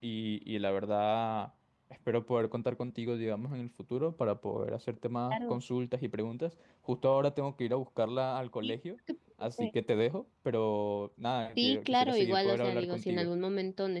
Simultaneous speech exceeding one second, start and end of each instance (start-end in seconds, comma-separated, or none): 11.6-13.3